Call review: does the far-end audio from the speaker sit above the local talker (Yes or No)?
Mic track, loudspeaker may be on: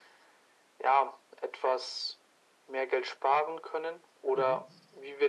Yes